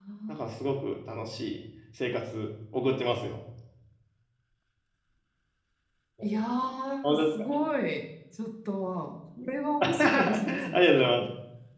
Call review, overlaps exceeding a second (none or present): present